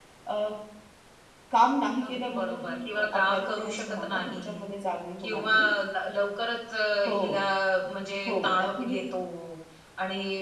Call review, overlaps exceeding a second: present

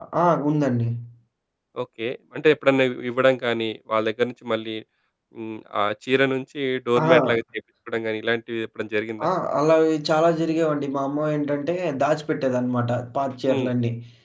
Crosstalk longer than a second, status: none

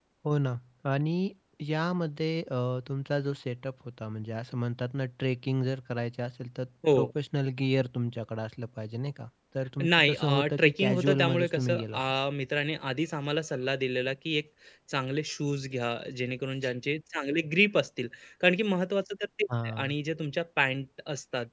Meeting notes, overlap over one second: present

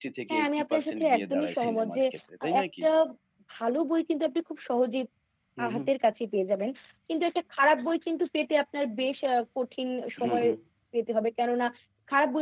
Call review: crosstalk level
present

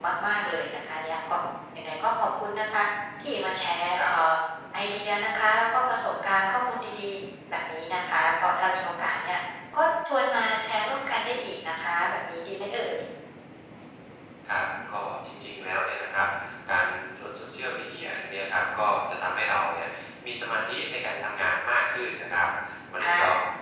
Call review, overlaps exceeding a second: none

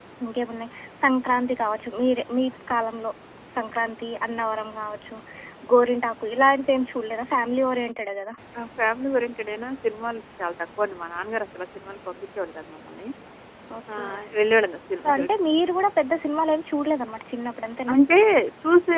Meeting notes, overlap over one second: none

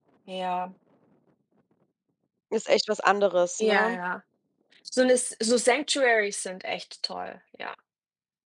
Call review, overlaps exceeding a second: none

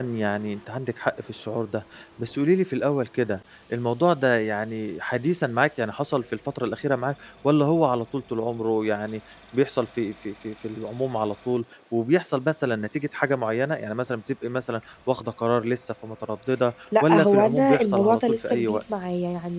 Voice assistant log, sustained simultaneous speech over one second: present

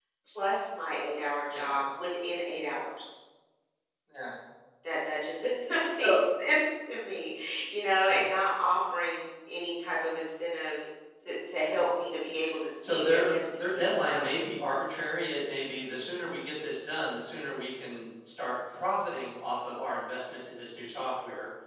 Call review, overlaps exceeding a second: present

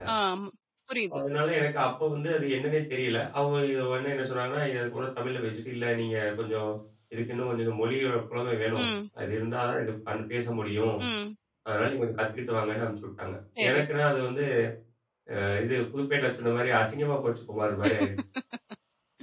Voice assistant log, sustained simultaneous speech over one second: none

